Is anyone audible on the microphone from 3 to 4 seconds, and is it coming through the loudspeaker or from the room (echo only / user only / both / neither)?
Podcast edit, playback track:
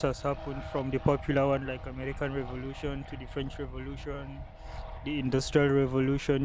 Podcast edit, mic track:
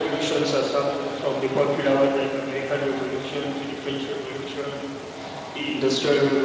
echo only